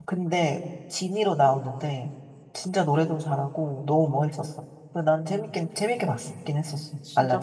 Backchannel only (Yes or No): No